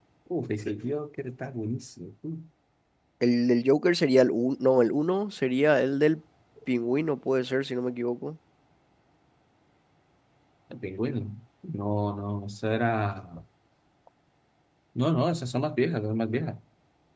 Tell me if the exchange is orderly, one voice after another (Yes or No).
Yes